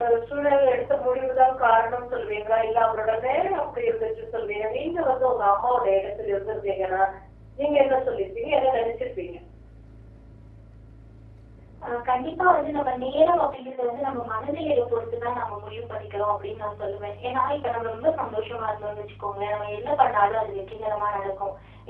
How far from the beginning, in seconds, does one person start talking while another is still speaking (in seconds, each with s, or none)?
none